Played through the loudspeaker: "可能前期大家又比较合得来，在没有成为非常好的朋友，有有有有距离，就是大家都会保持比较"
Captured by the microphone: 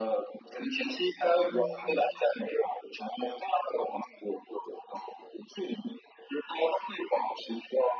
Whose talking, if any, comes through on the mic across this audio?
both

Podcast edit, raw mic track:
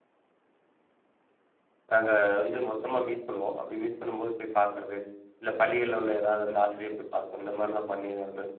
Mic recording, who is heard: user only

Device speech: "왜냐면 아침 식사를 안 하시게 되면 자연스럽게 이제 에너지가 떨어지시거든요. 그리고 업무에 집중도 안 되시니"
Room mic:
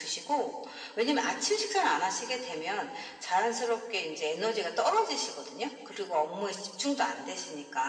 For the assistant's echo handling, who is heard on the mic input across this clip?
echo only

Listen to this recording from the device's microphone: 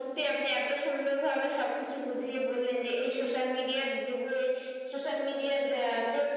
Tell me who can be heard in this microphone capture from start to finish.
echo only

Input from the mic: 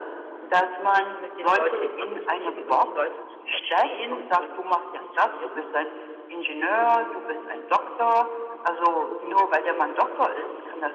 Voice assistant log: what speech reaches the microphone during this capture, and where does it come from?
both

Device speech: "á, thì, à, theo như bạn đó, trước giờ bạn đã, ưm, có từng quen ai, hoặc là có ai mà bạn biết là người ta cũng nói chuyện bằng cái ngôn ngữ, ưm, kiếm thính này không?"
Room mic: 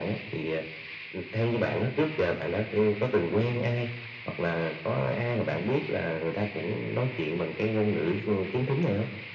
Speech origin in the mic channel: echo only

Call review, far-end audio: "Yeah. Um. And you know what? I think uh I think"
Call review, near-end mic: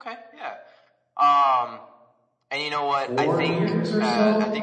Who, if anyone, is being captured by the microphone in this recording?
both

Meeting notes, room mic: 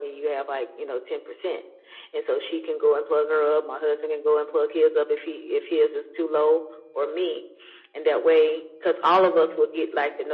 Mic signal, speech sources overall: echo only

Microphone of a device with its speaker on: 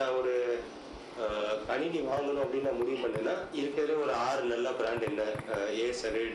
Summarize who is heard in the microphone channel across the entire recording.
echo only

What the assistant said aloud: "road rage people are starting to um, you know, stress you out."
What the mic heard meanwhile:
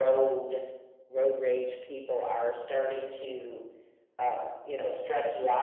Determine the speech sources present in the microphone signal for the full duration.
echo only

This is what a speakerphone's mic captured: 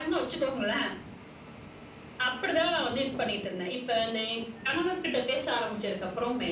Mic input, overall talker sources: echo only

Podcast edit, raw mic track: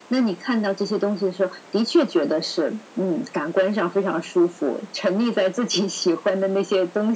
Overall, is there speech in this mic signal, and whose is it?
echo only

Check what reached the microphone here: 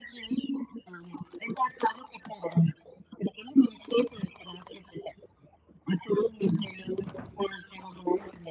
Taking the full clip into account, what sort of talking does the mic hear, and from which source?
echo only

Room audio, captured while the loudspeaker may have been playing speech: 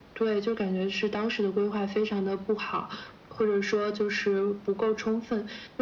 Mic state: echo only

